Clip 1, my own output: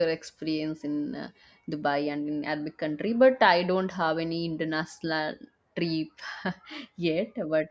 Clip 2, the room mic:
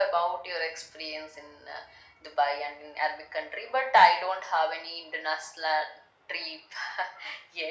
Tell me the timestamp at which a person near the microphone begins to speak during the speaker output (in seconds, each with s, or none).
none